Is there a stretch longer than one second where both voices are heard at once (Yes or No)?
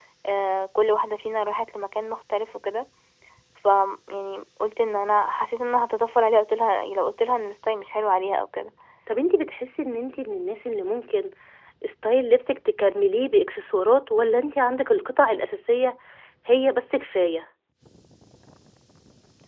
No